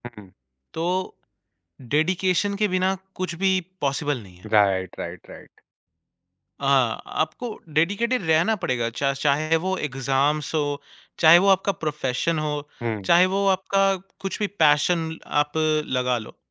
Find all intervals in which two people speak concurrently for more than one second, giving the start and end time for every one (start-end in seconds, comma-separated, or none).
none